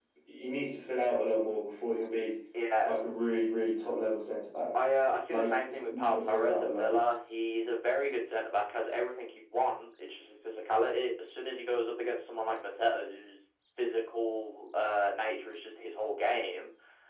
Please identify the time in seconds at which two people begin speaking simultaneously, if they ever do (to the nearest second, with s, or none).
5 s